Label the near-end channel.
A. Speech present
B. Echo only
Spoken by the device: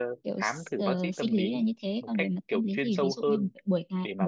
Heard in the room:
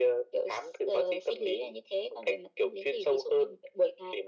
B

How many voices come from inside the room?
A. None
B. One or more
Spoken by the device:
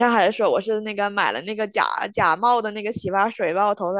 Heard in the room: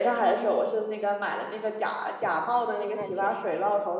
B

